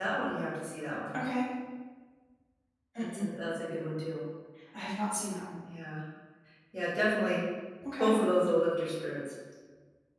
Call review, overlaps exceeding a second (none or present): none